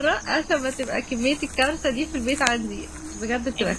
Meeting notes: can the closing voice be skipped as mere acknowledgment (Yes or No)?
No